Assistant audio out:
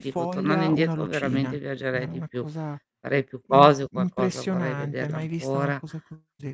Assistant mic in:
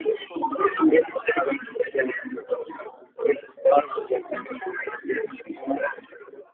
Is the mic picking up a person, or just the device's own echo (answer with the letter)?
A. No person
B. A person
A